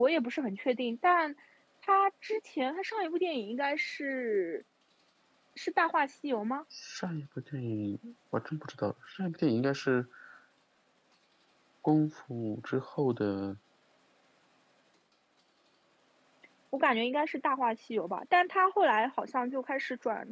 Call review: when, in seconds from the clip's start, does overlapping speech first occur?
none

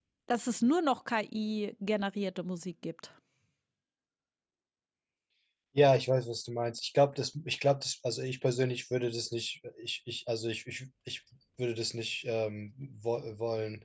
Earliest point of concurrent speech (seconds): none

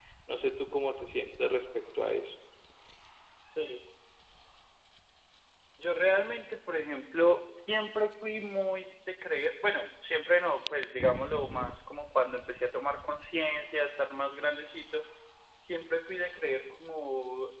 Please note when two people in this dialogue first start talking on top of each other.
none

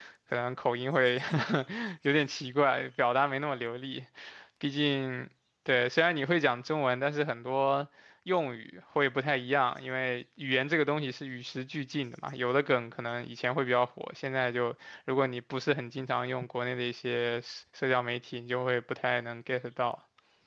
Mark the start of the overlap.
none

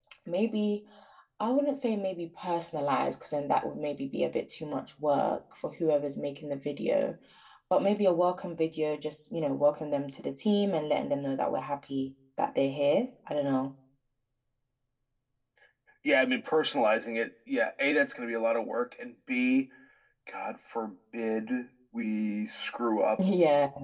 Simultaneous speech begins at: none

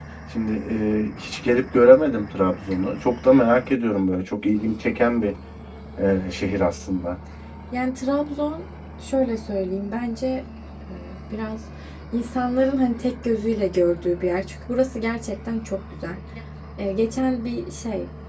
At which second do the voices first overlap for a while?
none

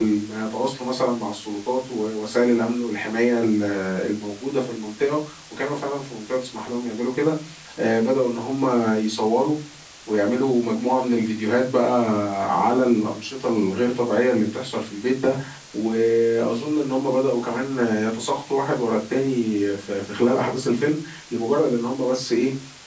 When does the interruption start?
none

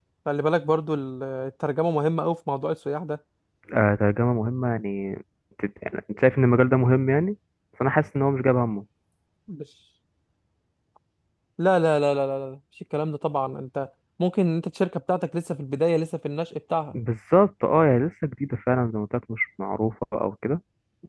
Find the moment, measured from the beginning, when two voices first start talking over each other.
none

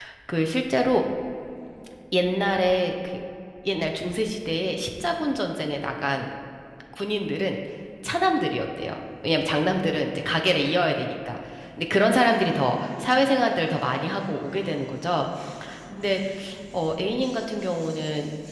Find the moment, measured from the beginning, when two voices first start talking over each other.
none

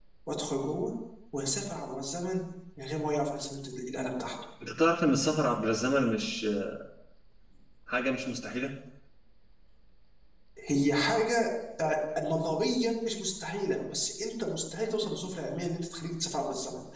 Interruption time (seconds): none

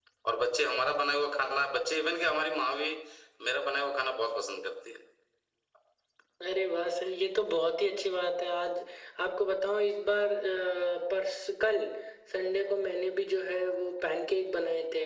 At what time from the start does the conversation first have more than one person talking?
none

